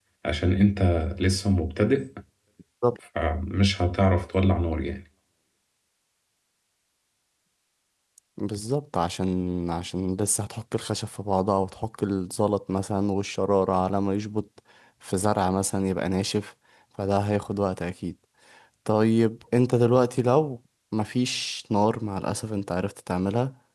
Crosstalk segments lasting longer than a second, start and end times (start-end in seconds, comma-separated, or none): none